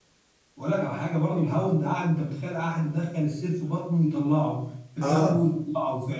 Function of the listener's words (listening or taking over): listening